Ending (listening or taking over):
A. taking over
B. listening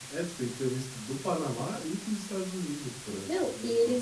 A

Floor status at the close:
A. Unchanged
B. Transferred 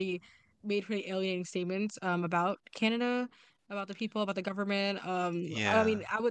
A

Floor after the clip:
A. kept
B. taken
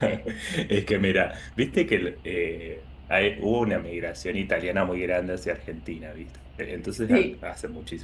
A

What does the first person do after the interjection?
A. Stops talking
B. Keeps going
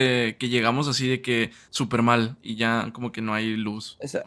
A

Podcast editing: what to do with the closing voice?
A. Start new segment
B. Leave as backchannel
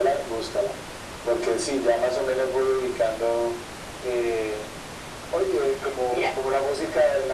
B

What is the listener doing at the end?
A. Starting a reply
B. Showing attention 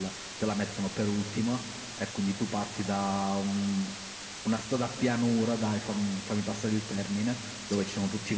B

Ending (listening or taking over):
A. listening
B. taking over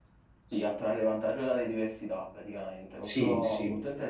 A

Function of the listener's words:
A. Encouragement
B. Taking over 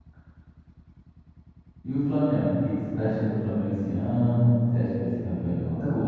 B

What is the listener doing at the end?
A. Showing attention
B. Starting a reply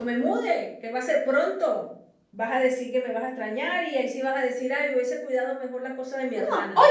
B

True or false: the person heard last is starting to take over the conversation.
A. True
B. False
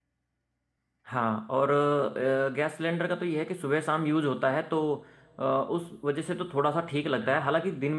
B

